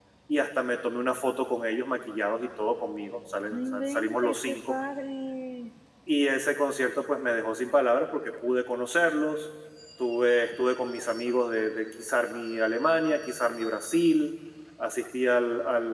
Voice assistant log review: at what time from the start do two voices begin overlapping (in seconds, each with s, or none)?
3.5 s